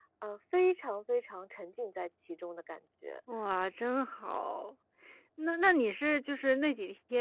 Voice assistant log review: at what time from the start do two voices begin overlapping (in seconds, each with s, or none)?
none